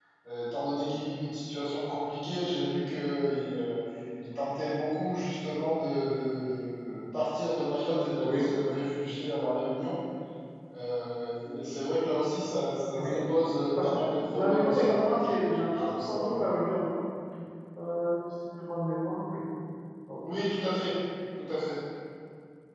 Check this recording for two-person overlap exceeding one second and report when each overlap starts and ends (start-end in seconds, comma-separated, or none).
14.3-16.4